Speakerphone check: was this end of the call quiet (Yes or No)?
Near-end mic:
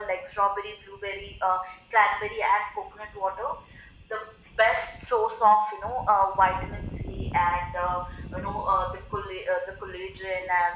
Yes